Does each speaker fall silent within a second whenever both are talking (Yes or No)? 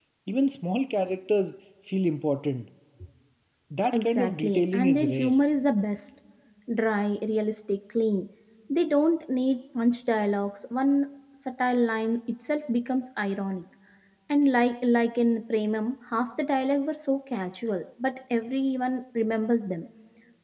No